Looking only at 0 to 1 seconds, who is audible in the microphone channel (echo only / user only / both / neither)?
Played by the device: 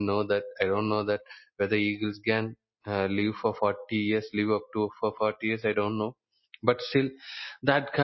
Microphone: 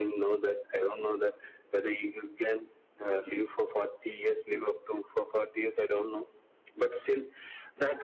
echo only